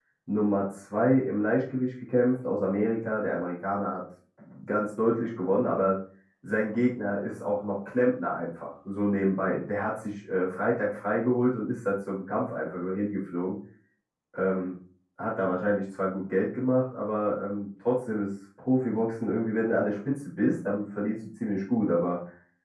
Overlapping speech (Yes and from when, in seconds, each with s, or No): No